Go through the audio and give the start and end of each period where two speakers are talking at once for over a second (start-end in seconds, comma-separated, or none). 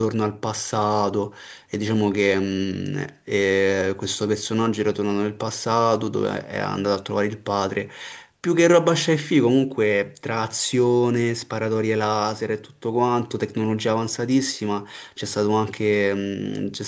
none